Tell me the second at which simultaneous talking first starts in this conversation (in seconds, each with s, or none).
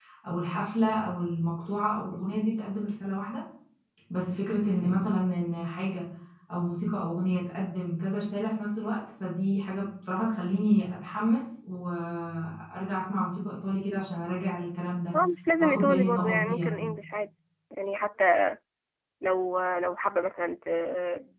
15.6 s